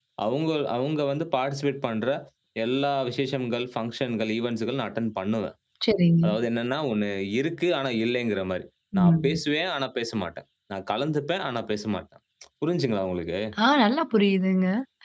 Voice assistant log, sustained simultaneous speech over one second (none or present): none